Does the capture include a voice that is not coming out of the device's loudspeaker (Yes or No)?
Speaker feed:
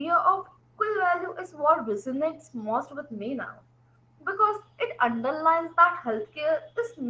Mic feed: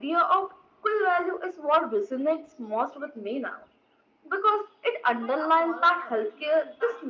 Yes